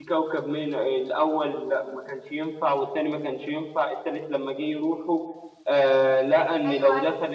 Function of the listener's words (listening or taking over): taking over